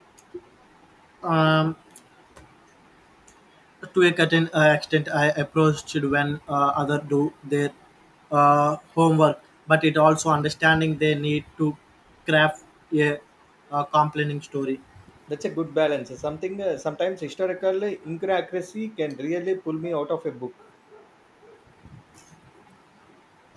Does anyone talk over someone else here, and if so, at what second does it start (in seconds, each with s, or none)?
none